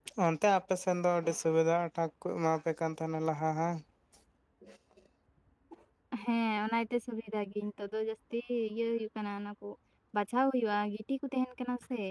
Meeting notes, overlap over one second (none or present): none